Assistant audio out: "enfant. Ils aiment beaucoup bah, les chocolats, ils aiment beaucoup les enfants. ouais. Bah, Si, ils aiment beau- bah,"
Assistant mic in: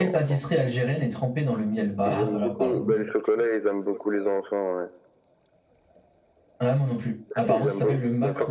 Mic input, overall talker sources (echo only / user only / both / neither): both